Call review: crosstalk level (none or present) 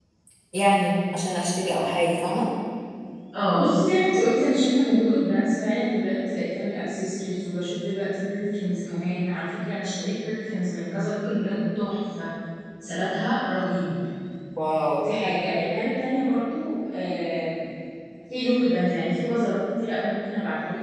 none